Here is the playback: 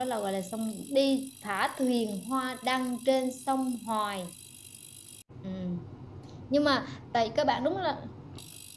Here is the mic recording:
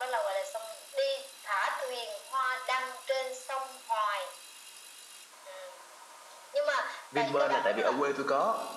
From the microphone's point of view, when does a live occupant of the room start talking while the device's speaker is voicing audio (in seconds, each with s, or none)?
7.1 s